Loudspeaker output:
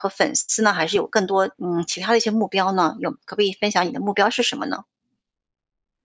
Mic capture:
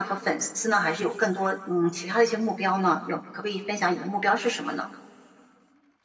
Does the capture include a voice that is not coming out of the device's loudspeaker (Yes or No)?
No